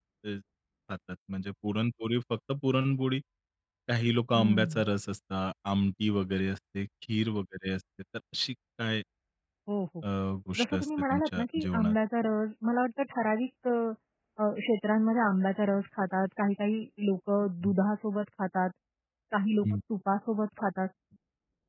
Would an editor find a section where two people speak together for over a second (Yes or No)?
Yes